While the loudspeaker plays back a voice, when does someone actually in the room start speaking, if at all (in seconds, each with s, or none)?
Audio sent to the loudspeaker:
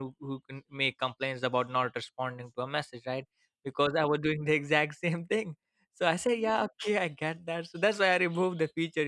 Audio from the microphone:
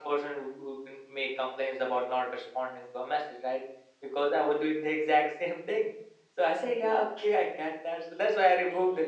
none